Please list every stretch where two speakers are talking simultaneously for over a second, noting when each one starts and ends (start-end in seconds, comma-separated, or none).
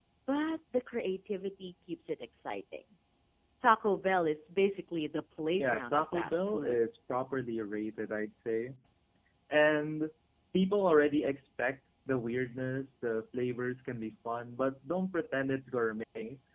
5.5-6.8